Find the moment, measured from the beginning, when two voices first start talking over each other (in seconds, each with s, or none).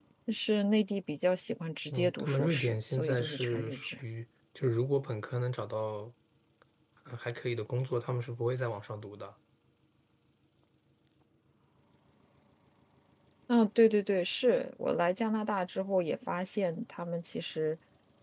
1.9 s